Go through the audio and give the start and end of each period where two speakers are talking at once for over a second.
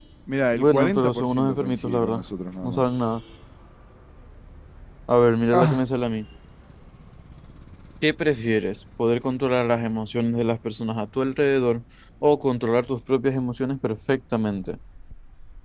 0.5-2.2

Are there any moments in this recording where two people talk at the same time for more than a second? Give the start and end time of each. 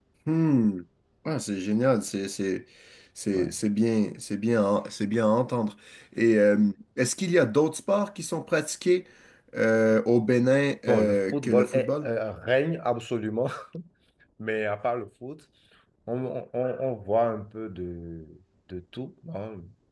10.9-12.1

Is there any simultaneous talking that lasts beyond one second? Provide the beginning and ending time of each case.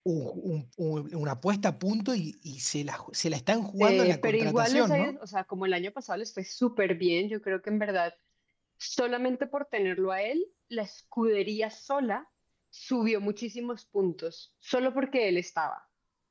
3.8-5.1

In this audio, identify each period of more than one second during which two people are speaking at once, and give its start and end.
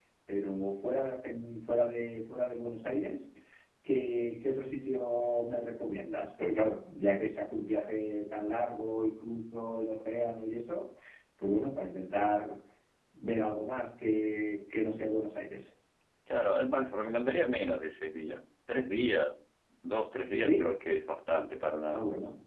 none

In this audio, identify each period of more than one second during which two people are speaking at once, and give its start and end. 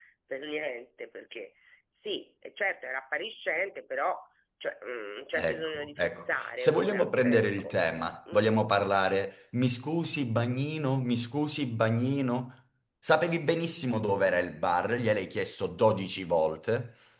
5.4-7.7

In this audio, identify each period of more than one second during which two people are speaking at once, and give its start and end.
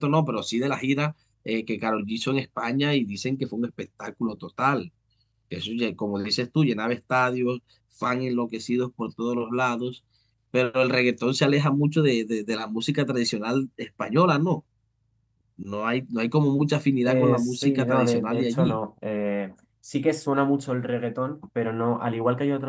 17.1-18.8

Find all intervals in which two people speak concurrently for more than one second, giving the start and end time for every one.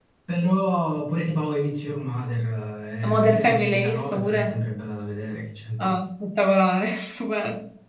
3.0-4.5

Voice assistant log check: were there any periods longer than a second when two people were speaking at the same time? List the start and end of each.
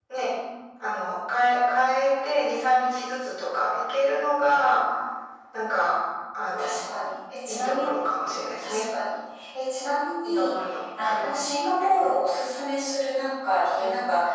none

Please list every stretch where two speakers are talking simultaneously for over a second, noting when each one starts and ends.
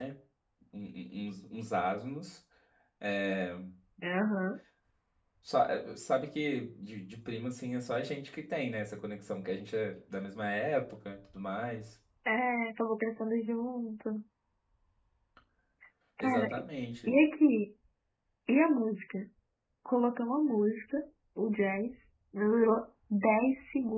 none

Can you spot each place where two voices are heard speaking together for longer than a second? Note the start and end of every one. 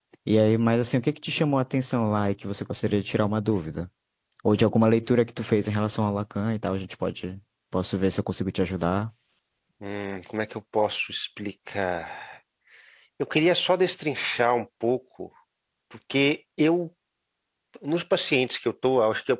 none

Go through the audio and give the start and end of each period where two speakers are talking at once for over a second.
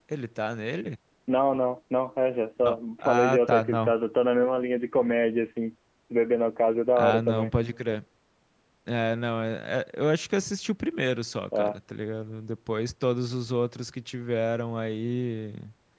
2.6-3.9

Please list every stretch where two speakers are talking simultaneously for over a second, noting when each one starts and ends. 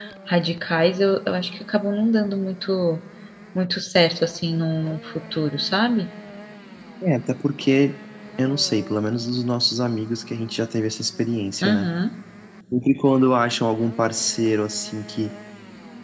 none

